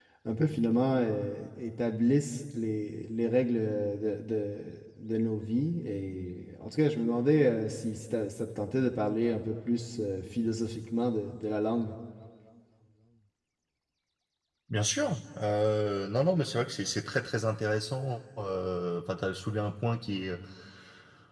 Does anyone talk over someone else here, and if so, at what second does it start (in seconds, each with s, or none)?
none